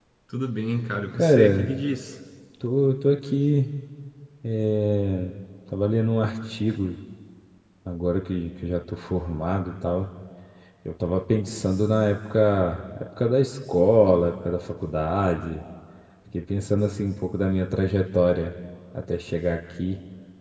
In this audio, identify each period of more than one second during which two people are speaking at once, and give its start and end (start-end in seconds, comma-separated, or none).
none